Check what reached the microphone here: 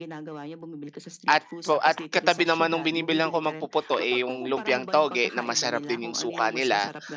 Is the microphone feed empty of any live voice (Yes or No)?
No